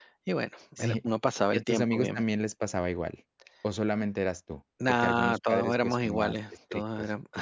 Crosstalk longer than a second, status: present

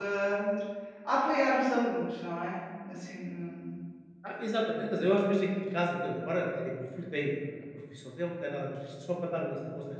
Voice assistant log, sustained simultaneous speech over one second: none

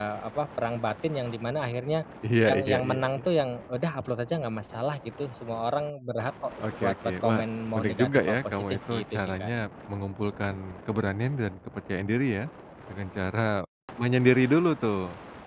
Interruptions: present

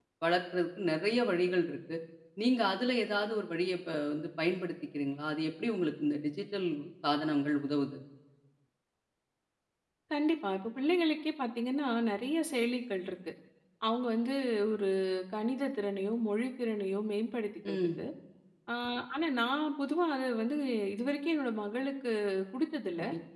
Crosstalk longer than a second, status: none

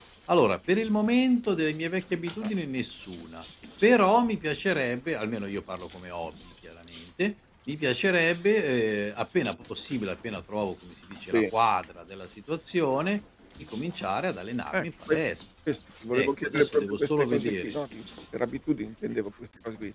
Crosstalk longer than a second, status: present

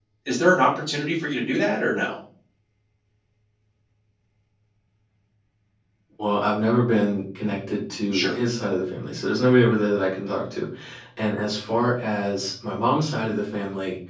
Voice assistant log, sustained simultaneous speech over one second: none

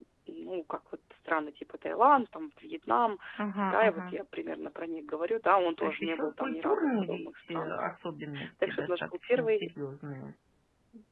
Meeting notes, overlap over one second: present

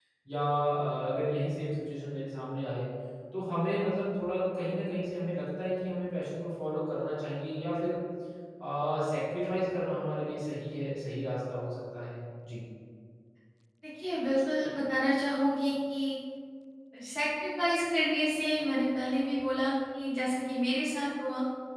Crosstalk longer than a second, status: none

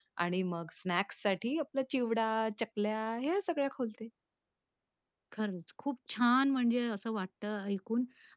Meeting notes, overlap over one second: none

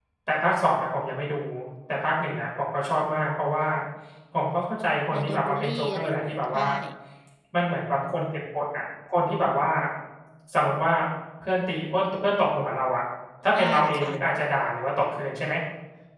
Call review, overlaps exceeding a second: present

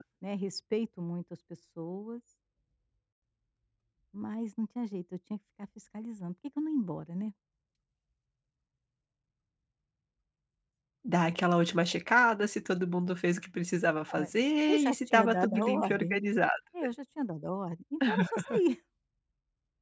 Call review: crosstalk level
present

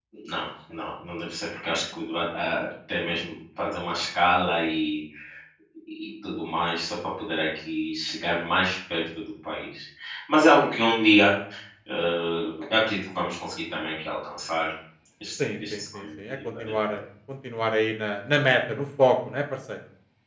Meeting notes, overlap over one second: present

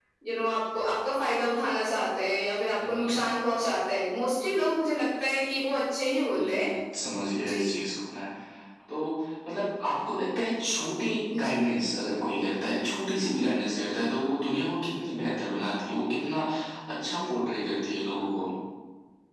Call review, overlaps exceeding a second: none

